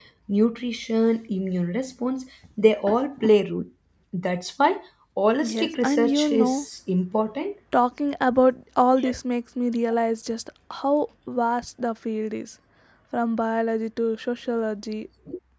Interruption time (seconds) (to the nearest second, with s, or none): 5 s